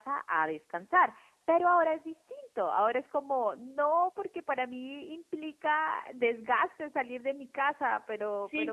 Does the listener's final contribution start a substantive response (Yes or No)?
Yes